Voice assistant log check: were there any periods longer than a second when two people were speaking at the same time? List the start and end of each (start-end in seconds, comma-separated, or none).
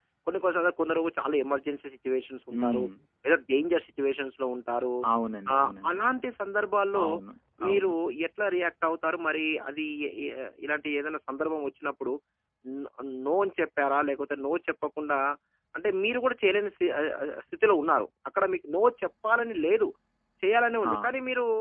none